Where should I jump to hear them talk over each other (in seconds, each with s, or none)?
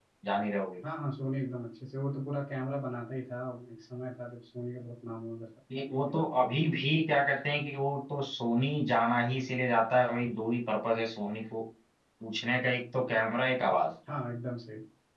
none